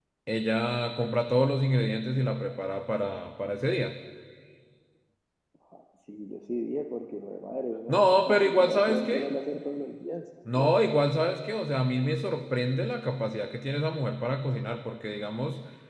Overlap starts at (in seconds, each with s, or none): 7.9 s